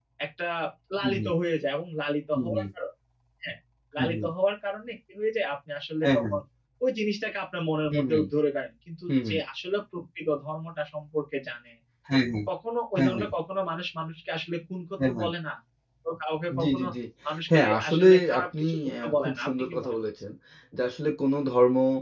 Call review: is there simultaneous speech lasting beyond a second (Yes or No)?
Yes